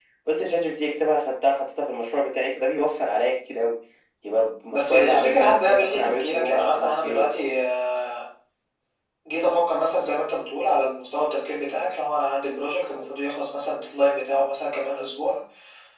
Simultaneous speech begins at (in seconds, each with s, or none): 4.7 s